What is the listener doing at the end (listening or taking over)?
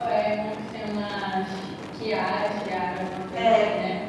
taking over